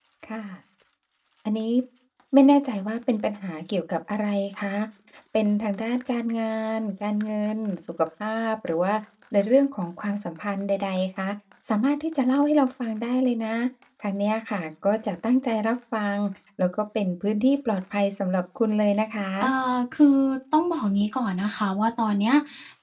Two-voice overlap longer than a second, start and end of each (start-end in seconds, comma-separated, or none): none